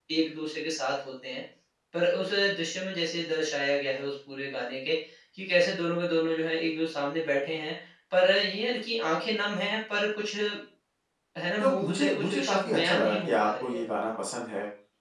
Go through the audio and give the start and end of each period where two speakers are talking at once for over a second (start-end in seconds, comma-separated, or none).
11.6-13.8